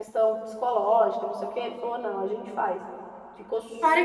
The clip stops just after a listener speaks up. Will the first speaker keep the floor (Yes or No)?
No